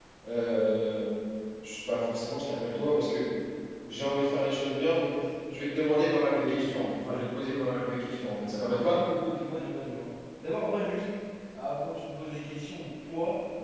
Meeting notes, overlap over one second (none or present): none